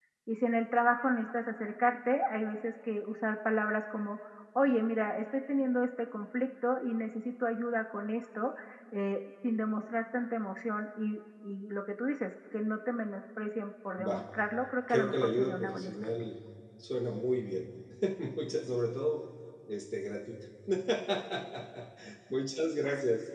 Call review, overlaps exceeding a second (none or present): present